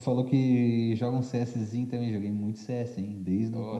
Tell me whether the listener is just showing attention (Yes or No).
No